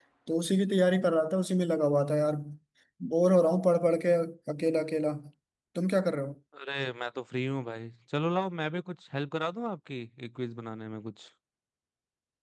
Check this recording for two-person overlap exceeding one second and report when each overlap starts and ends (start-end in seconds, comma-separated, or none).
none